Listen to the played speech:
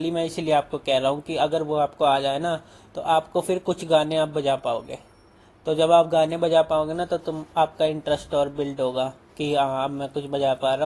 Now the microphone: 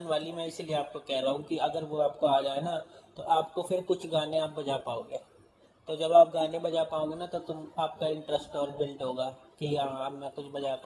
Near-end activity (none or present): none